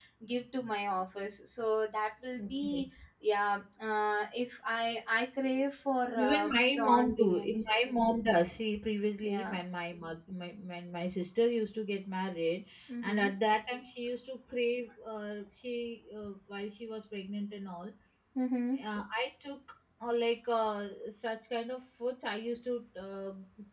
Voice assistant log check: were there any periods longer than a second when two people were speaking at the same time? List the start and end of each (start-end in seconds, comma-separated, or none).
6.2-7.6